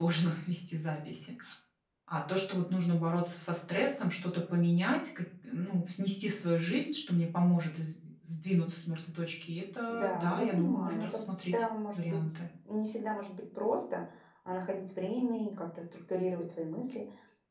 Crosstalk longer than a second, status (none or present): present